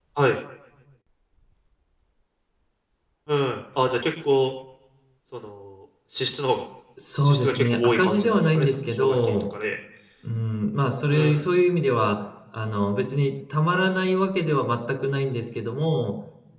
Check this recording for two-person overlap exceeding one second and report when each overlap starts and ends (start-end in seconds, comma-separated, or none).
7.2-9.5